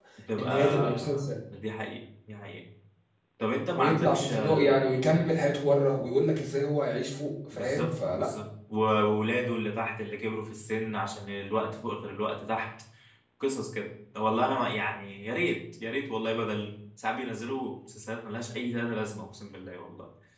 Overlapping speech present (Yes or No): Yes